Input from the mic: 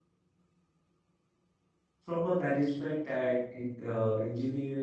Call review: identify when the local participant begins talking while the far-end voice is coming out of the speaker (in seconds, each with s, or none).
2.0 s